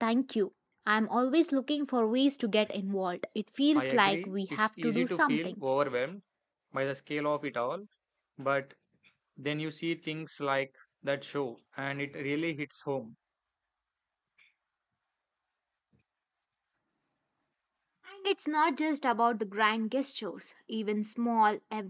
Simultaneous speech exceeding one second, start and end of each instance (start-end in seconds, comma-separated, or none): 3.8-5.6